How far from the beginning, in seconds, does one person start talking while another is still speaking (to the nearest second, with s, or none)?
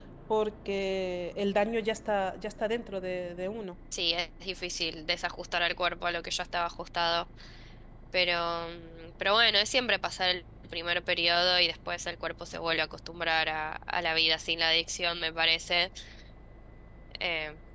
none